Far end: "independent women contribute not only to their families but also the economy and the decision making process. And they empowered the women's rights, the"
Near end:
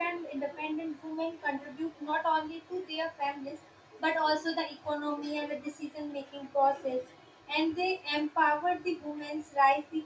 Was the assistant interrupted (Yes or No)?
No